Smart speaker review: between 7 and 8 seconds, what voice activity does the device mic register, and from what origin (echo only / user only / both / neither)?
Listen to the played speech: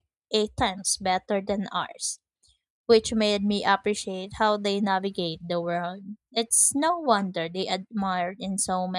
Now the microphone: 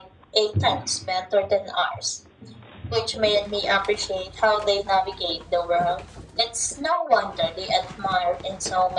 echo only